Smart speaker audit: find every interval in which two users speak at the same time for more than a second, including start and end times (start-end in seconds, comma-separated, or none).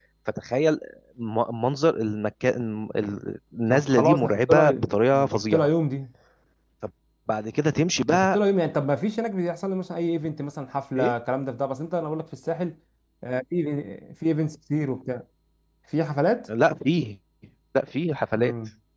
3.7-5.7